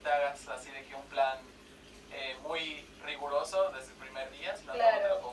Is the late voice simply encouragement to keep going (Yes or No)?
Yes